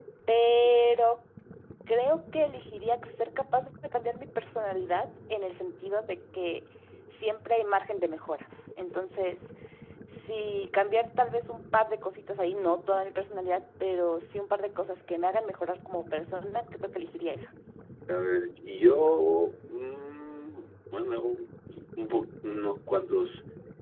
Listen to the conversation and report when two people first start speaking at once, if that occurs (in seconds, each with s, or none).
none